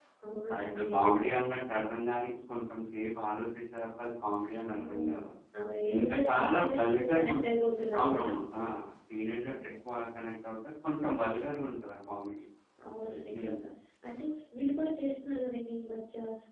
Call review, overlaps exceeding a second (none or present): present